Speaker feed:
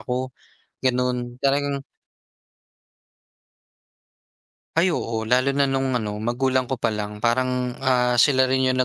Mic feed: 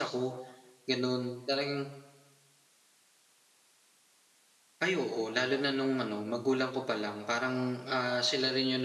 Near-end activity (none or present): none